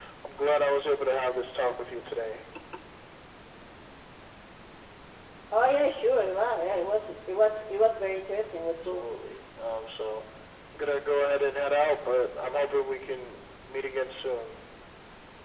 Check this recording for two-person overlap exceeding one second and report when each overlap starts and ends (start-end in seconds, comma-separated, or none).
none